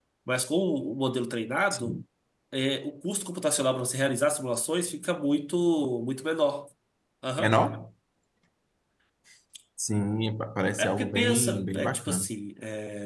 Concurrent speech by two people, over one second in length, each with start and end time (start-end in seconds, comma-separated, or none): 10.8-12.3